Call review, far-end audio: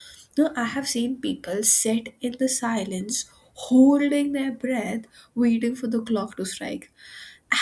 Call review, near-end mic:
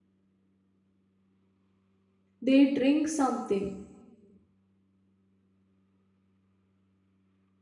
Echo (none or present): none